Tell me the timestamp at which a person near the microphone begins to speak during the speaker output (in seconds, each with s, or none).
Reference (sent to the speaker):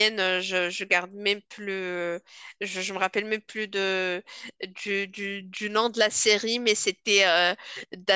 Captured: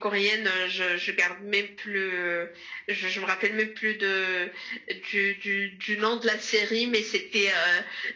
none